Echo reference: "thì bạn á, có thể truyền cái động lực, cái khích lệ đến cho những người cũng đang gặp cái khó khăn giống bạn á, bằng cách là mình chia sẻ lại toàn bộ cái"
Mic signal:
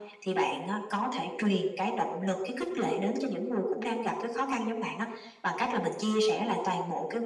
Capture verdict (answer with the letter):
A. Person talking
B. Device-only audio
B